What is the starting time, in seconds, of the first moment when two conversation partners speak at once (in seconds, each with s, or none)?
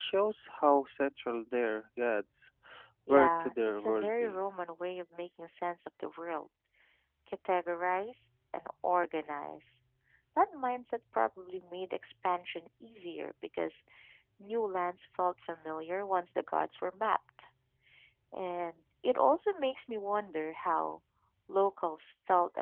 3.1 s